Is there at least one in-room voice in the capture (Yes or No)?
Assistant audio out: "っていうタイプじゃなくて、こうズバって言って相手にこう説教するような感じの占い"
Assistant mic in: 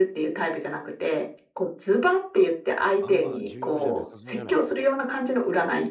Yes